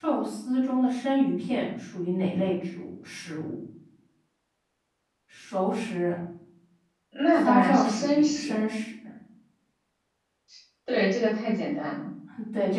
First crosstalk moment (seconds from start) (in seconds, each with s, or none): 7.3 s